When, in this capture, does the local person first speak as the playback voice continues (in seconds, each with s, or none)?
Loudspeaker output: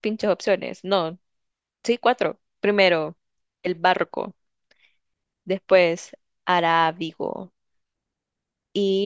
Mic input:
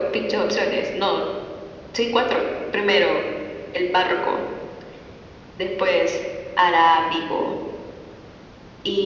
none